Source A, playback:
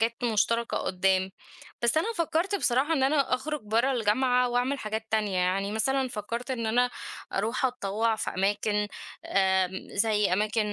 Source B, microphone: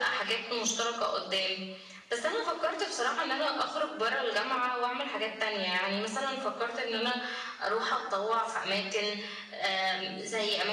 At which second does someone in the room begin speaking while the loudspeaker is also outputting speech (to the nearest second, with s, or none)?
none